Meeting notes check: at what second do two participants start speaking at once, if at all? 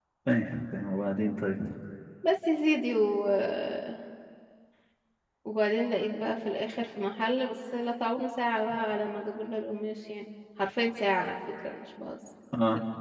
none

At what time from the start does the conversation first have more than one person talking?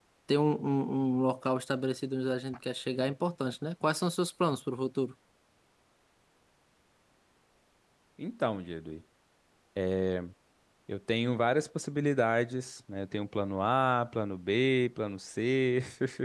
none

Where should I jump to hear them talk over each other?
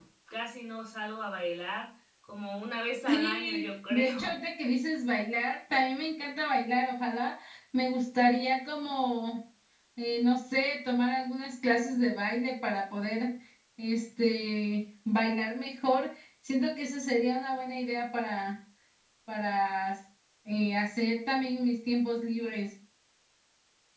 3.1 s

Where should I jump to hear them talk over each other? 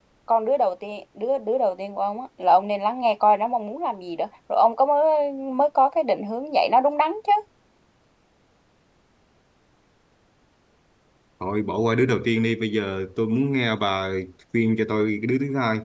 none

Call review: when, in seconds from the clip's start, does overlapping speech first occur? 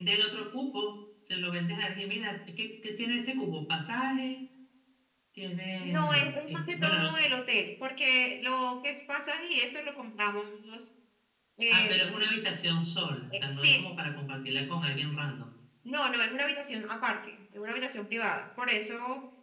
5.8 s

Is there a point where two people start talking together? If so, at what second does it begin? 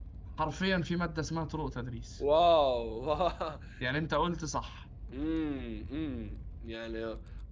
none

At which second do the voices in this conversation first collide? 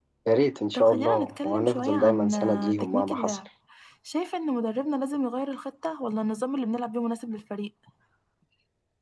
0.7 s

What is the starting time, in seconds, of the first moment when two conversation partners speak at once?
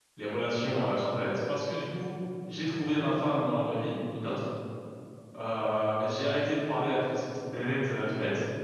none

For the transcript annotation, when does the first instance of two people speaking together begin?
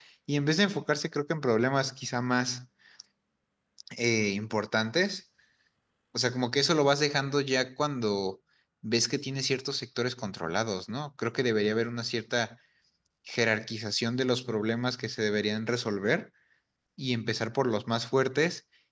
none

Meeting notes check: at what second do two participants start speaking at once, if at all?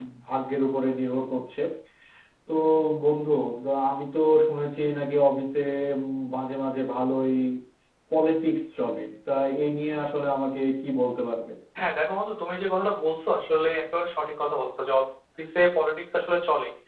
none

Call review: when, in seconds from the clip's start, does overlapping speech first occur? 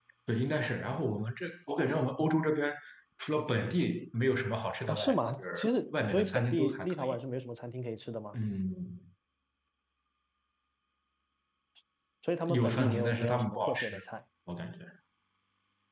4.9 s

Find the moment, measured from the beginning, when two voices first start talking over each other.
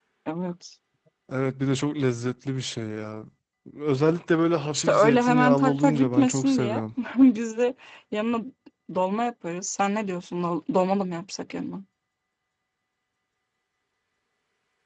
4.7 s

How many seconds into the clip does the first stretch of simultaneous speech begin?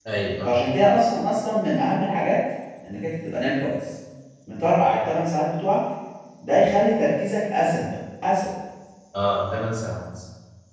none

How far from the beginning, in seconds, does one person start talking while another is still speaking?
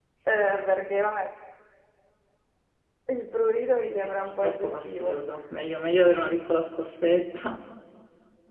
3.9 s

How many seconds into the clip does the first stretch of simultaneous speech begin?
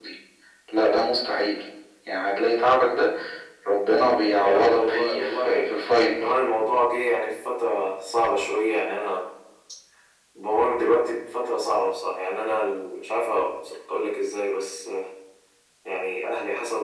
4.4 s

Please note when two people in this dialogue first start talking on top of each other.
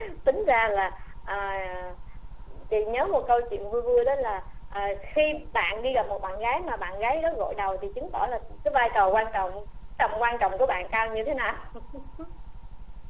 none

